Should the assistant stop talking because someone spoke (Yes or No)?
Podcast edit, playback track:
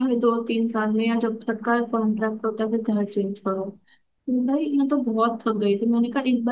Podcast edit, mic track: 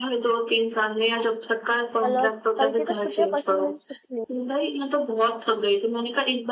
Yes